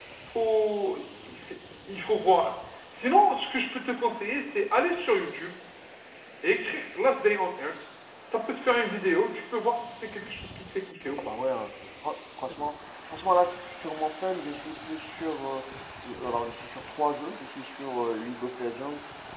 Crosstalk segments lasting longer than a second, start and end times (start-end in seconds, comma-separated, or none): none